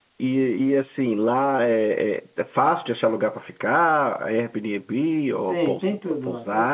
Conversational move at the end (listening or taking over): taking over